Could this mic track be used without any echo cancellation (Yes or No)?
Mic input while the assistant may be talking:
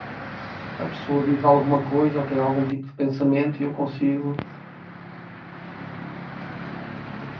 Yes